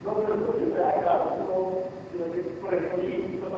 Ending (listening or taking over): listening